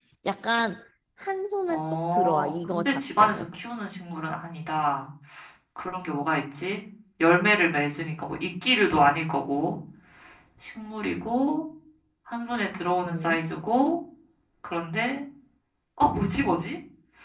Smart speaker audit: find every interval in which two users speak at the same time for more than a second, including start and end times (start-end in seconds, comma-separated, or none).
1.7-3.4